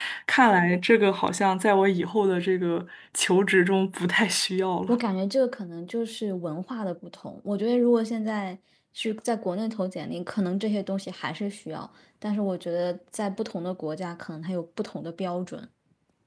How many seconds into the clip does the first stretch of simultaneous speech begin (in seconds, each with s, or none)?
none